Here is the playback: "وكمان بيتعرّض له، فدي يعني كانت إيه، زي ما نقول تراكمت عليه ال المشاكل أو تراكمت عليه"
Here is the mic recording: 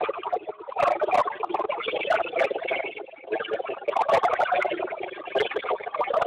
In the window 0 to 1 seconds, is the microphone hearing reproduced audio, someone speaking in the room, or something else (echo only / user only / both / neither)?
echo only